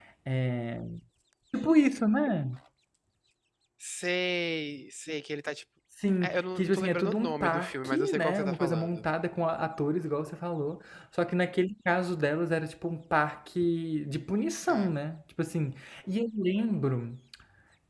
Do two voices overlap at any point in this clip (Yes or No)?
Yes